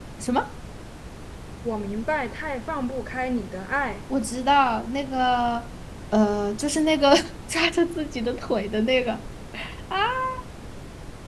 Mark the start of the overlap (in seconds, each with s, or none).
none